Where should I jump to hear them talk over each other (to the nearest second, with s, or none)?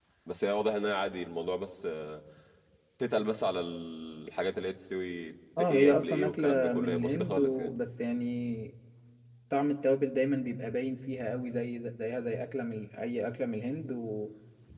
6 s